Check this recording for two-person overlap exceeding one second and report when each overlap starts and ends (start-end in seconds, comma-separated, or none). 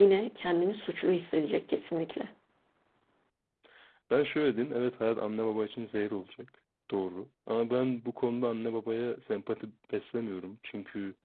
none